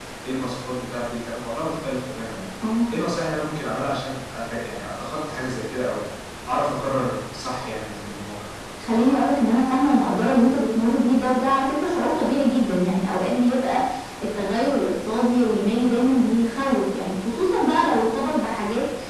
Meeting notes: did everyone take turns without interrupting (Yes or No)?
Yes